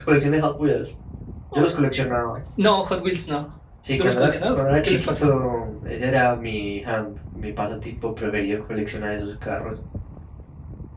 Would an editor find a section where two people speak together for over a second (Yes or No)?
Yes